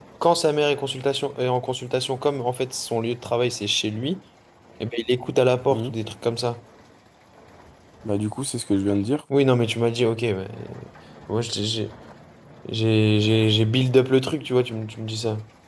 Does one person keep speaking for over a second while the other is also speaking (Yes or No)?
No